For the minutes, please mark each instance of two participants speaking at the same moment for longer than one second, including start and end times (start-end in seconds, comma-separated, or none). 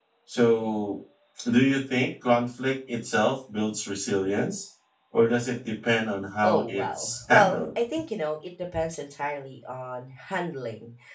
6.4-7.7